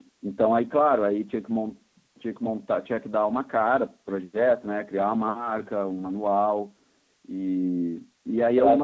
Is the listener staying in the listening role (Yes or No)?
Yes